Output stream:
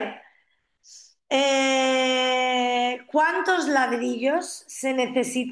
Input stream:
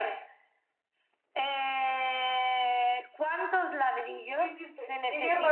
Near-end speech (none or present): present